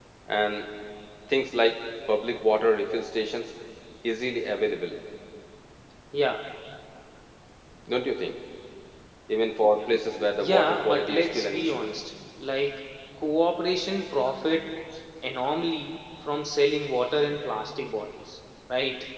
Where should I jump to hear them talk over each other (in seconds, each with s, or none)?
10.4 s